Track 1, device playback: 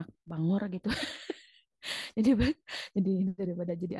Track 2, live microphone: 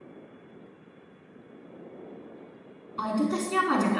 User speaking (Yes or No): Yes